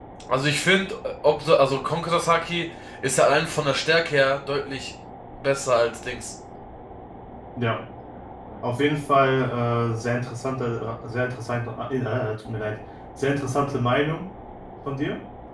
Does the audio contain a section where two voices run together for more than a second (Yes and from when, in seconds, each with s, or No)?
No